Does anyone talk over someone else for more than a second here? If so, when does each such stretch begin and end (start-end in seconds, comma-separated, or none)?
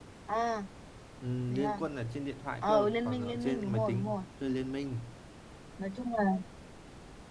2.6-4.2